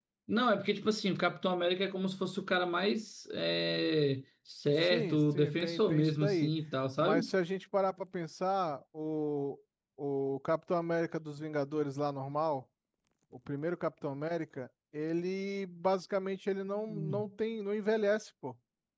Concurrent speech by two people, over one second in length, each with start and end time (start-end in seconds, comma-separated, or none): 4.8-6.5